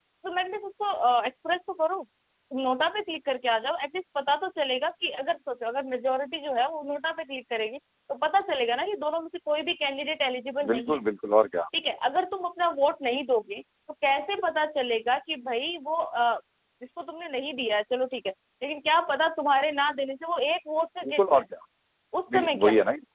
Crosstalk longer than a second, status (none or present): none